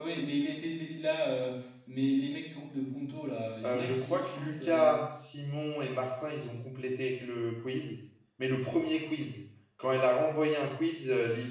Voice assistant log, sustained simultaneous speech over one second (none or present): present